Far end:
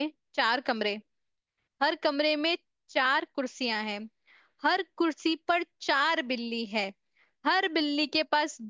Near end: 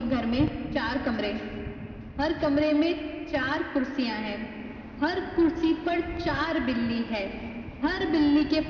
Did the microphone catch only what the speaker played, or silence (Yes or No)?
Yes